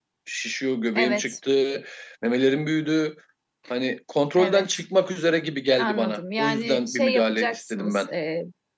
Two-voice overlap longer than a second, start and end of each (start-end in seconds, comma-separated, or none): 5.8-8.1